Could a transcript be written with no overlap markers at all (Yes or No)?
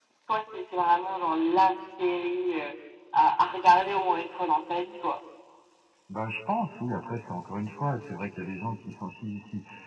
Yes